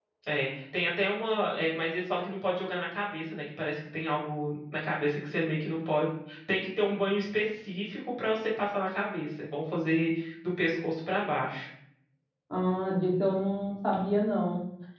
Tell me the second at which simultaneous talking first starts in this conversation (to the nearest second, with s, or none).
none